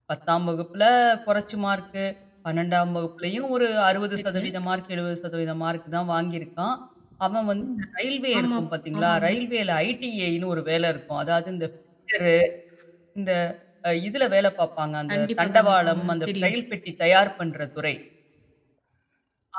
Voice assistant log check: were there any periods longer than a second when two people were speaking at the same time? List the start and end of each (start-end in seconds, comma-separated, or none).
15.1-16.5